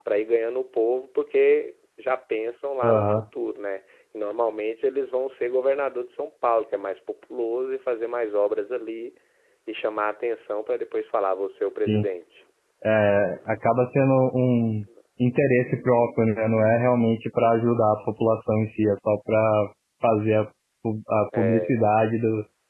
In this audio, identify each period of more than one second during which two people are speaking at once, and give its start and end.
none

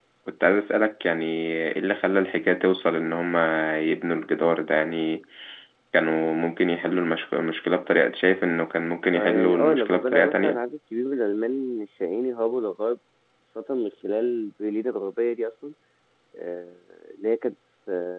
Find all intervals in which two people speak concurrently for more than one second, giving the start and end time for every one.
9.1-10.6

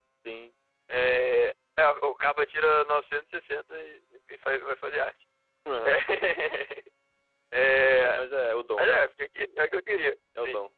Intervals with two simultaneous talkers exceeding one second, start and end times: none

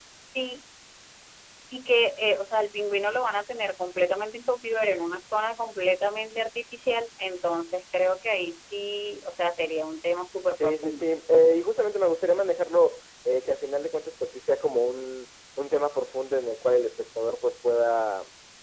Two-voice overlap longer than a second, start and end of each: none

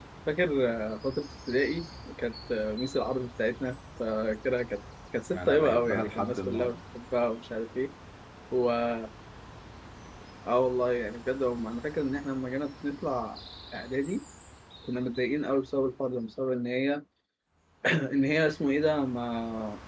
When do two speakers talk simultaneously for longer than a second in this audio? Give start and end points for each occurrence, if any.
5.3-6.7

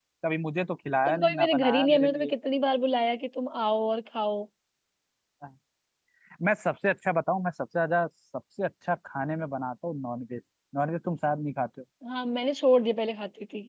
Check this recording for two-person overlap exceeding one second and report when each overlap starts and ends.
1.1-2.3

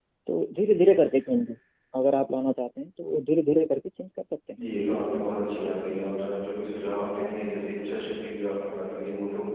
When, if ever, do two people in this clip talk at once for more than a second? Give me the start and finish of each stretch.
none

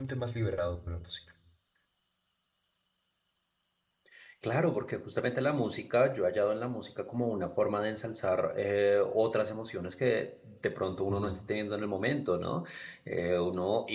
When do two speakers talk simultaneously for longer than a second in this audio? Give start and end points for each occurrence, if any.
none

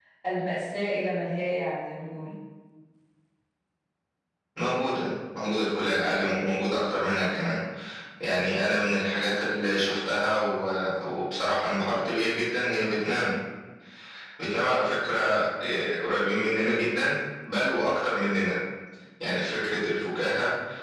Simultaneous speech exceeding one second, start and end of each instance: none

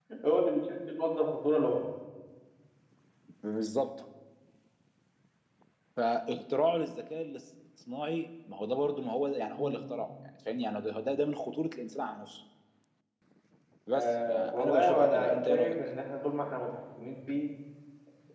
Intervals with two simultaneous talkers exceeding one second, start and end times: 13.9-15.8

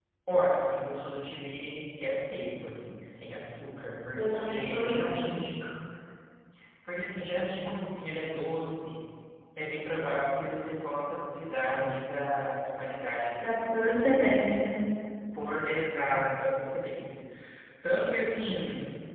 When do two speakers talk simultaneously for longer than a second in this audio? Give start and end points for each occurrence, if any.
4.2-5.5

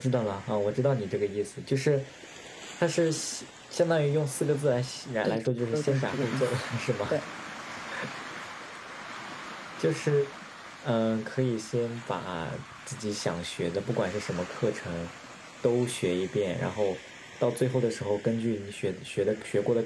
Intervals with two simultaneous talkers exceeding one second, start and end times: 5.2-6.6

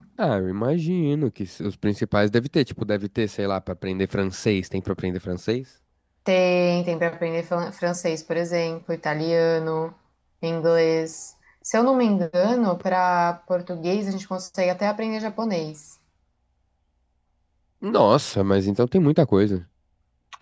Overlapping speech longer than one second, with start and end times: none

